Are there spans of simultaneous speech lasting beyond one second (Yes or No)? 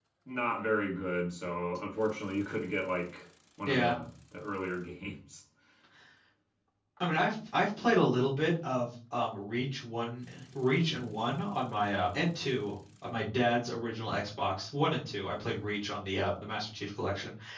No